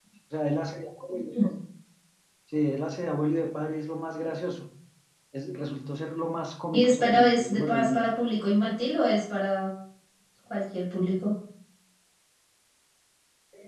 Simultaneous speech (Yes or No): Yes